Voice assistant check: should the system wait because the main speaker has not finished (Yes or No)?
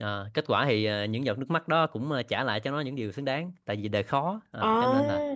Yes